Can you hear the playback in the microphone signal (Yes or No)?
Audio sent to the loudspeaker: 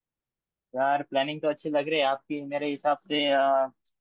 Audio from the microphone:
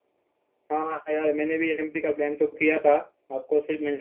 No